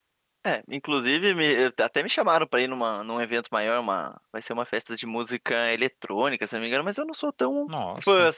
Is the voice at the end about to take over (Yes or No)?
No